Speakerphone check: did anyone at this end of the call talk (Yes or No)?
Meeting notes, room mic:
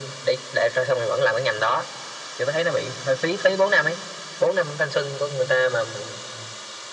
No